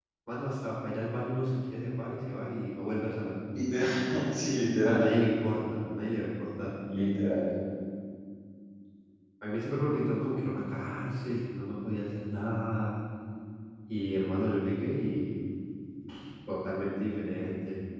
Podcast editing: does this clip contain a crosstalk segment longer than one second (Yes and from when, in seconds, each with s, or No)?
No